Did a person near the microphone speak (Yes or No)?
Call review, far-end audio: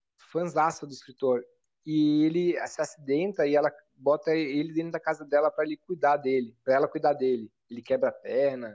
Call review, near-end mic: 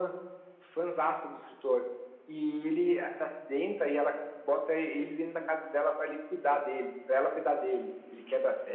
No